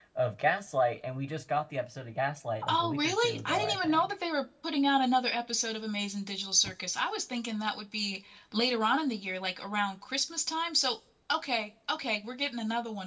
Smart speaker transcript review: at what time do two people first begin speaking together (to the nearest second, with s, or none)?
3 s